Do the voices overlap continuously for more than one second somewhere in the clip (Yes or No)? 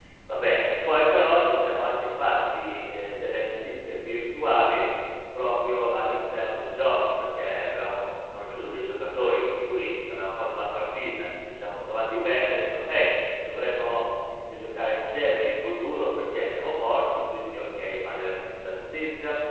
No